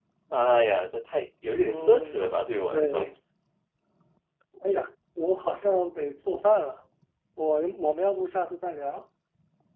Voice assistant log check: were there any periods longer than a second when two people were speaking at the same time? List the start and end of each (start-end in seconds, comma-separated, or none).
1.6-3.1